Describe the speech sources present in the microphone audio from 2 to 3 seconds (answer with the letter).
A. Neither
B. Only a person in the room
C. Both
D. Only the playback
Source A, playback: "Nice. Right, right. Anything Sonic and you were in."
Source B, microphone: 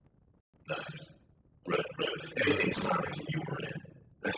C